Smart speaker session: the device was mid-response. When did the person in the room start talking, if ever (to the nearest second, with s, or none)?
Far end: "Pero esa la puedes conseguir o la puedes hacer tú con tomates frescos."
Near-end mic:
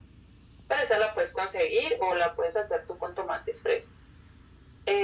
none